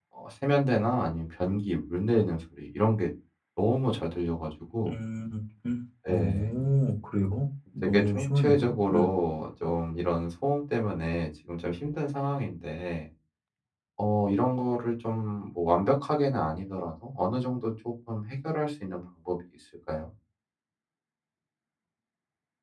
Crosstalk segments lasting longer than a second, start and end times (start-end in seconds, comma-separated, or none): 7.8-9.1